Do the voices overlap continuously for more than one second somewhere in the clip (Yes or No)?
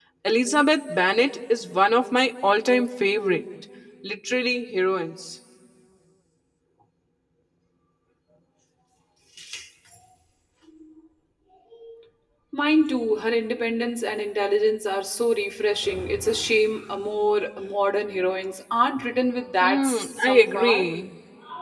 Yes